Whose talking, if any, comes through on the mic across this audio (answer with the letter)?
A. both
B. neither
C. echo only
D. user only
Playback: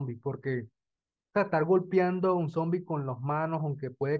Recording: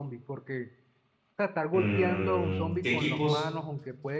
A